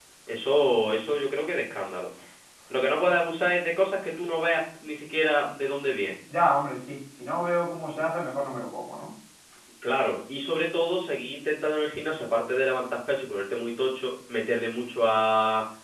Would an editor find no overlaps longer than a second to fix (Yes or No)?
Yes